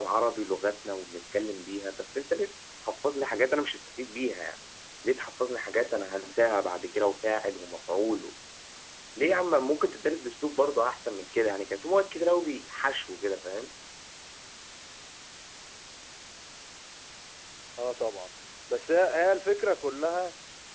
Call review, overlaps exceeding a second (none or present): none